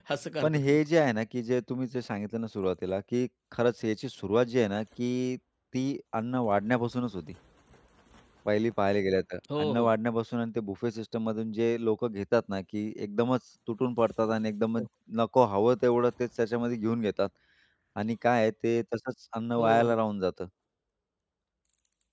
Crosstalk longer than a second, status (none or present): none